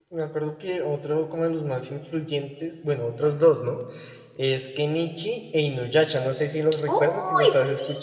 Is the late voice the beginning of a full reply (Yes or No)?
Yes